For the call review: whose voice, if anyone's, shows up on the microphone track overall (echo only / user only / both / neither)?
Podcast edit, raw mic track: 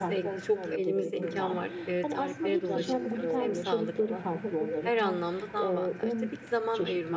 both